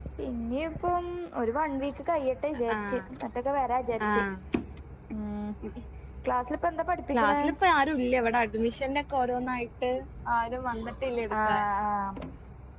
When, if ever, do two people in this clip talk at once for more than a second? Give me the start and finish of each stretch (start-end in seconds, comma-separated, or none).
none